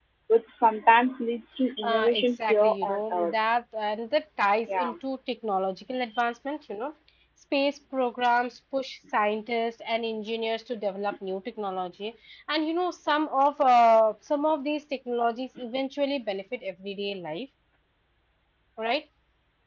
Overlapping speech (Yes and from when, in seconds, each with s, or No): Yes, from 1.8 s